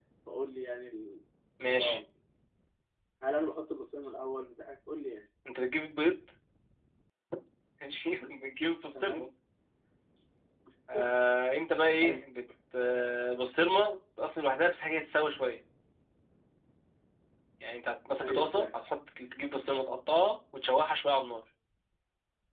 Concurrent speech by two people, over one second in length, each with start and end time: none

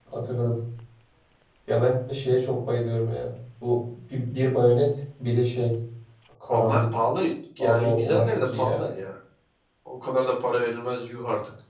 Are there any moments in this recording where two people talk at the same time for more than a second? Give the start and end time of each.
7.6-8.8

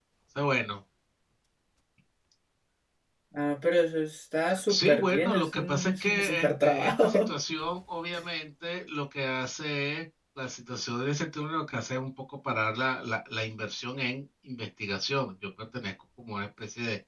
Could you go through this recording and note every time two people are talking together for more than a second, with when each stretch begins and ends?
4.7-7.3

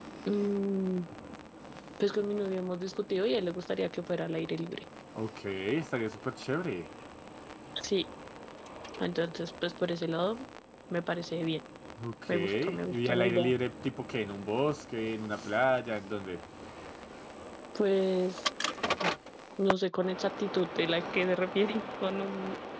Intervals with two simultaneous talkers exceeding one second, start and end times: 12.3-13.5

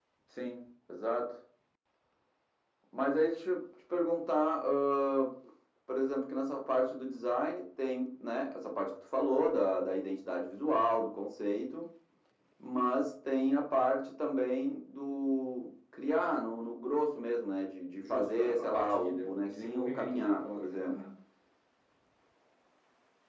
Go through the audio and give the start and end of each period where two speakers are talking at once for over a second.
18.0-20.9

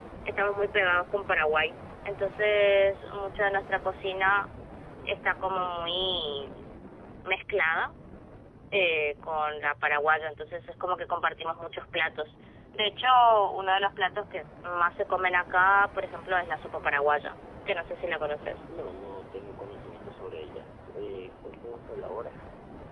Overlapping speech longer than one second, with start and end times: none

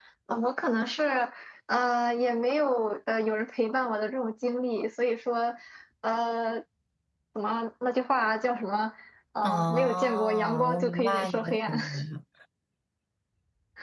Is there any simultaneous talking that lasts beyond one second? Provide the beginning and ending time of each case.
9.4-11.8

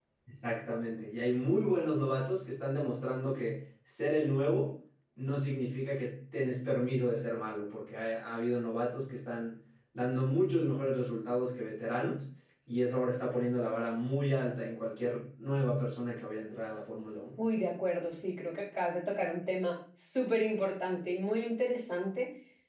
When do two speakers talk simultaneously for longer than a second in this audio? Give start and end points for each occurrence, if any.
none

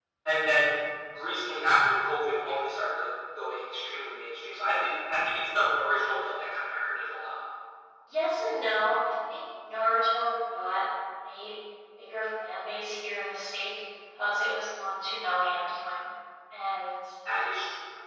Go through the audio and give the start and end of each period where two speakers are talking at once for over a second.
none

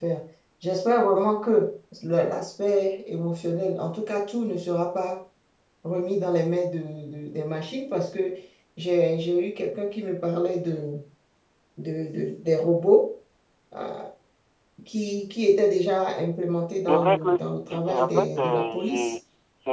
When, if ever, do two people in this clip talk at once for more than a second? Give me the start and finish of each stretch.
17.7-19.1

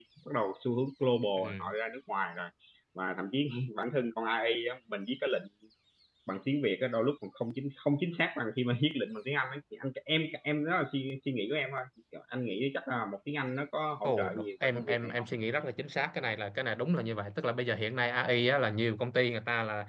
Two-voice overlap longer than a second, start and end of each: 14.0-15.2

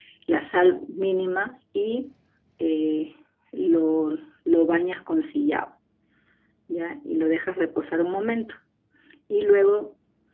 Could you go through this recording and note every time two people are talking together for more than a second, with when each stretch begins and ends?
none

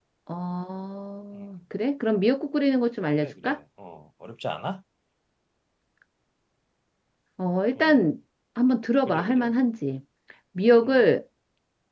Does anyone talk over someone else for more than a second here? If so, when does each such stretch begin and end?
none

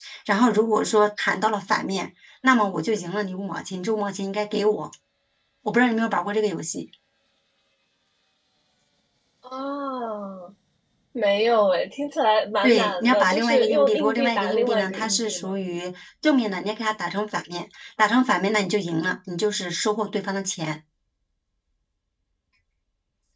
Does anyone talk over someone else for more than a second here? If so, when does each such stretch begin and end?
12.6-15.5

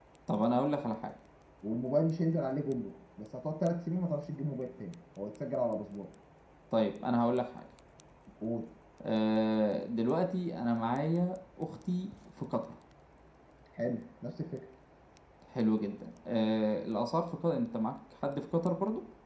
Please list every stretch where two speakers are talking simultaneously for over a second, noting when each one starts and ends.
none

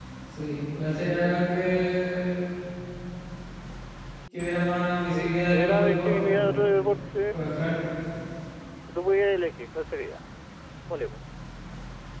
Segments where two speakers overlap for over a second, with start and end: 5.1-6.5

